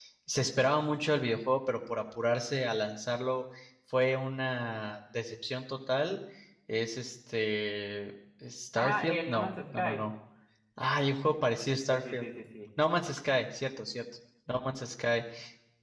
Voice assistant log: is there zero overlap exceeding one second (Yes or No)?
No